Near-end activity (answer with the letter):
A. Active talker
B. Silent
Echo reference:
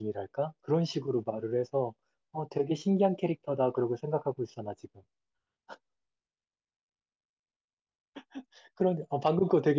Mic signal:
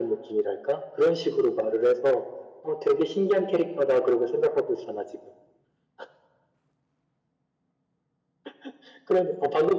B